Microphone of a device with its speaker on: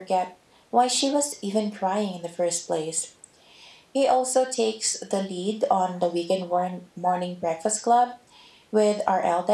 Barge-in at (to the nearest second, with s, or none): none